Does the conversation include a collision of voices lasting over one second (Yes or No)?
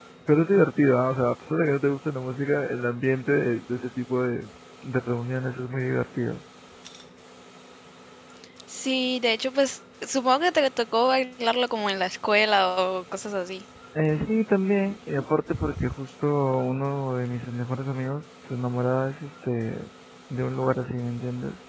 No